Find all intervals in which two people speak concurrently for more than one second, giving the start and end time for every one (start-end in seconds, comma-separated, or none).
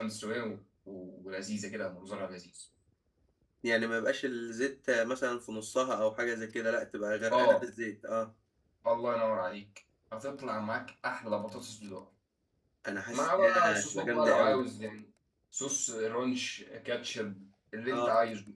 13.1-14.6